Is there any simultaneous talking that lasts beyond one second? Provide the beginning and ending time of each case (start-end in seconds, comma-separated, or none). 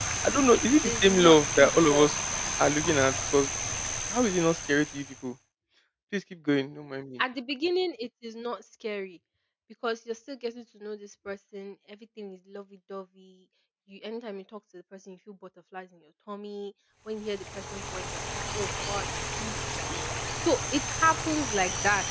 0.5-2.1